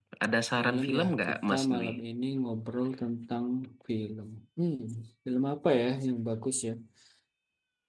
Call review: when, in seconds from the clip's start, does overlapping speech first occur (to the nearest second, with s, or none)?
1 s